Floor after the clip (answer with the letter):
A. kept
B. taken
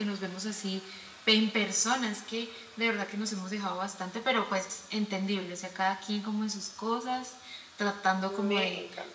A